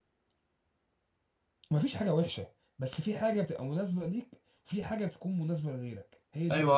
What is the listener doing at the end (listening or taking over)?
taking over